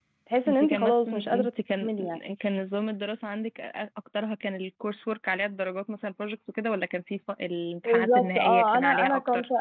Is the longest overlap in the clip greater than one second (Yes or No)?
Yes